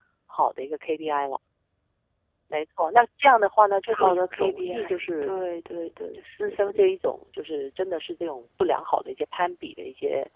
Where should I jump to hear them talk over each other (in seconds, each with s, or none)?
3.9 s